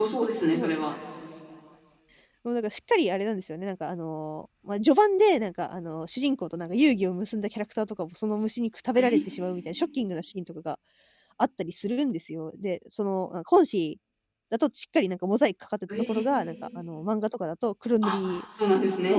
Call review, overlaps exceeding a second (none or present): none